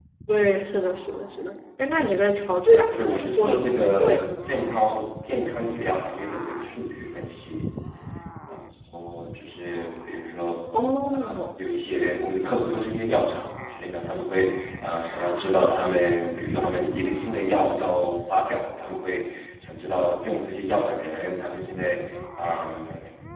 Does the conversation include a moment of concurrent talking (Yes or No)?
Yes